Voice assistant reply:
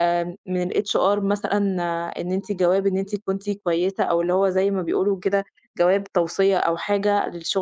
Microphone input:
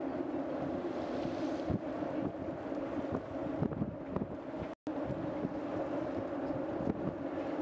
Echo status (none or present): none